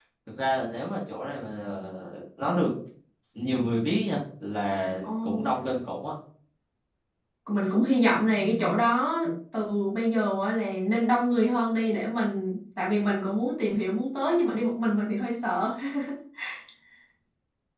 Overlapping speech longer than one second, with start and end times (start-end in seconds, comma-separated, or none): none